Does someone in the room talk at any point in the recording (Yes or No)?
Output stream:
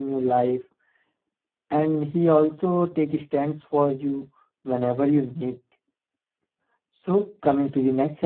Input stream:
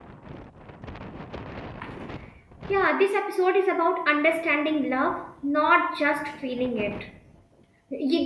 Yes